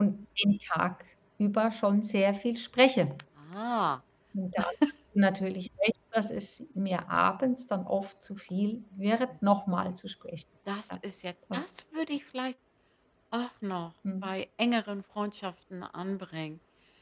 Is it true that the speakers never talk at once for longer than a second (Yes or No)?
Yes